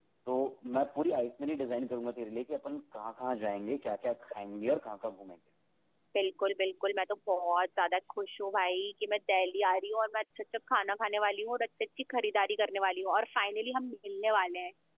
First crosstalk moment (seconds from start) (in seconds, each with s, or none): none